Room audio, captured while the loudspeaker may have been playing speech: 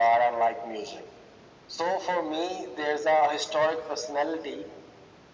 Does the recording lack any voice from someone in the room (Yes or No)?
Yes